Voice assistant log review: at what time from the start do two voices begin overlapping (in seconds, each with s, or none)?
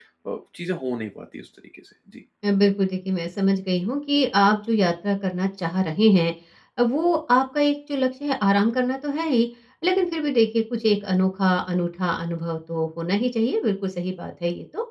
none